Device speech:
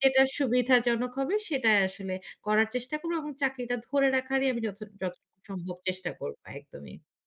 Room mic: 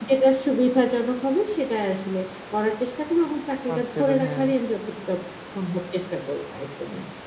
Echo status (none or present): present